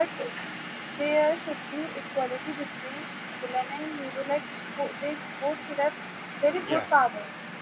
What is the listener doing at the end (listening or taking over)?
listening